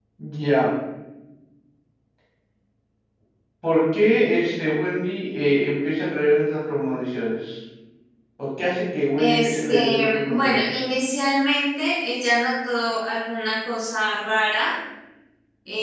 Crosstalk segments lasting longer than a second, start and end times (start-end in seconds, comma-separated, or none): 9.2-10.8